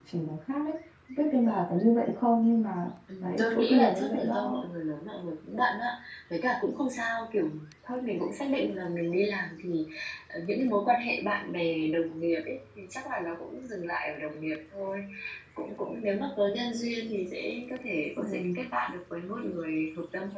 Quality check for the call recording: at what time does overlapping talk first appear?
3.2 s

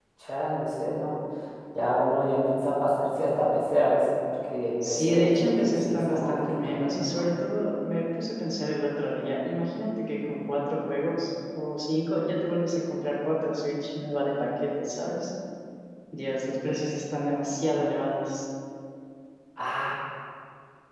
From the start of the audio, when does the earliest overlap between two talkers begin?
4.8 s

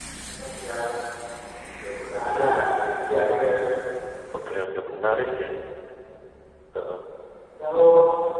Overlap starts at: 2.3 s

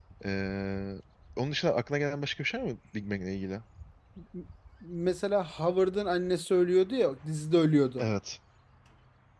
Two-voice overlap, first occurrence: none

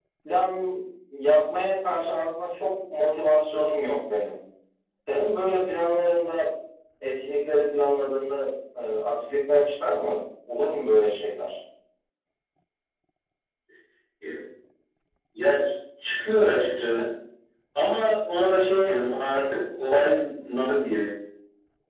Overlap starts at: none

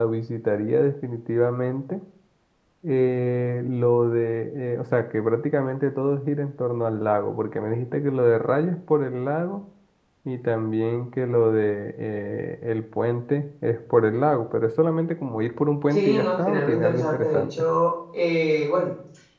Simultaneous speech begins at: 15.9 s

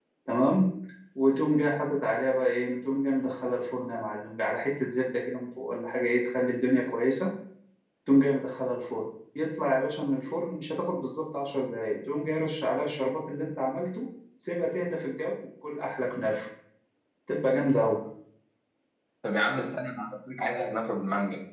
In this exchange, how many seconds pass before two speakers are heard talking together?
none

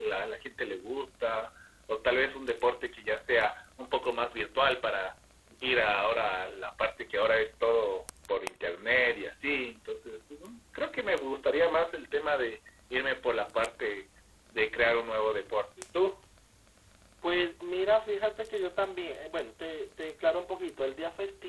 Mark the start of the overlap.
none

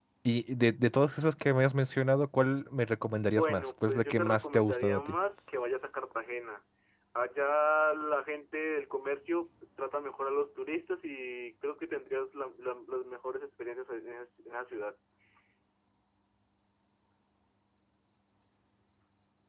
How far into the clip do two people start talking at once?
3.2 s

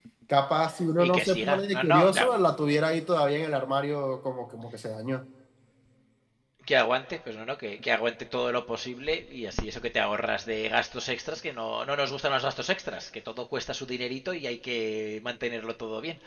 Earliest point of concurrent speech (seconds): 1.0 s

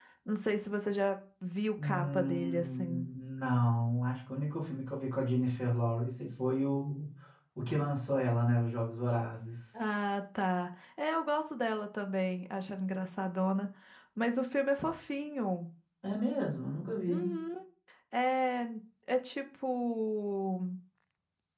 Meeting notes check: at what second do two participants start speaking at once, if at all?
1.8 s

